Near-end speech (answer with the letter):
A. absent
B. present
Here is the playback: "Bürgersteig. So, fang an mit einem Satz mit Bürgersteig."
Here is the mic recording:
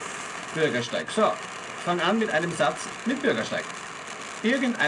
A